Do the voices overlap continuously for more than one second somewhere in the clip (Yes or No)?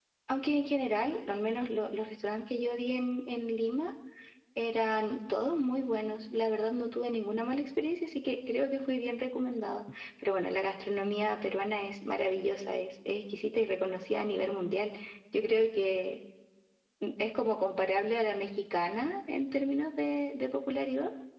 No